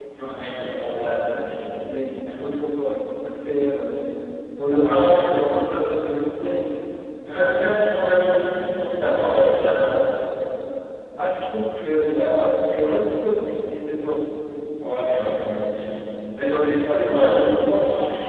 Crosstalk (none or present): present